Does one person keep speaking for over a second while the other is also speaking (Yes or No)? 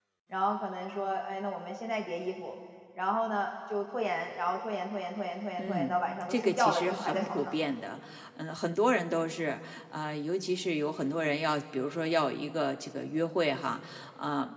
Yes